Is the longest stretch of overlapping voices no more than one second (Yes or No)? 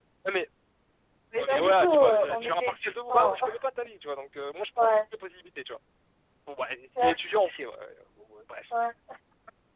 No